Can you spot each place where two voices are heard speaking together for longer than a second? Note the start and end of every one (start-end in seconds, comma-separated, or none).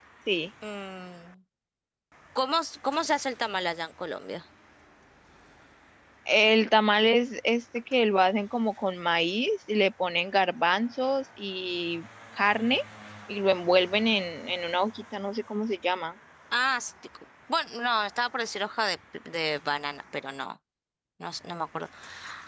none